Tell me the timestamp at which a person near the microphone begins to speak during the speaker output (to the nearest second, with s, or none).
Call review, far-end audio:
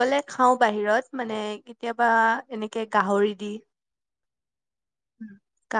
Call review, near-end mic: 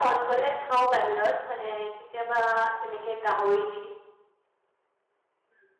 none